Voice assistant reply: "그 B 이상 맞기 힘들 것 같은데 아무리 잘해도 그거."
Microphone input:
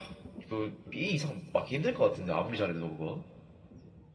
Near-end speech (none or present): none